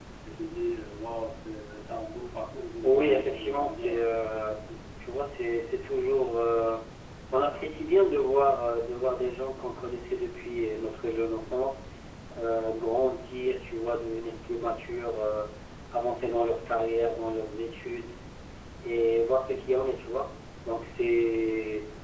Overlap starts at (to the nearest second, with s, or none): 3 s